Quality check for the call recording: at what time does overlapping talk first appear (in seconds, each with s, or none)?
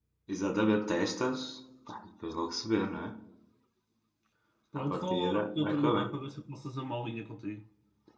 4.8 s